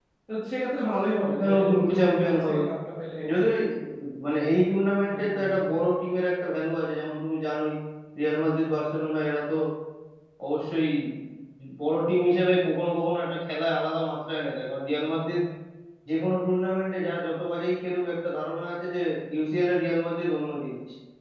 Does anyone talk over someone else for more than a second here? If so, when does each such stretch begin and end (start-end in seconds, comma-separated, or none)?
1.4-2.6